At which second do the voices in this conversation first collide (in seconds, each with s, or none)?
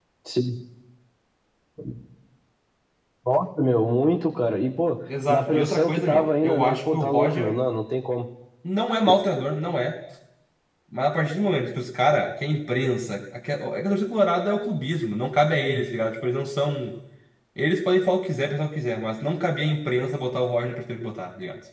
5.1 s